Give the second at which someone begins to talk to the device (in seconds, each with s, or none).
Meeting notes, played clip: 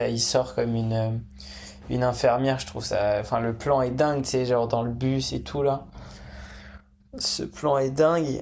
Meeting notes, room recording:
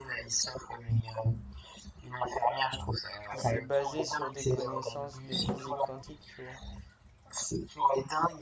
3.3 s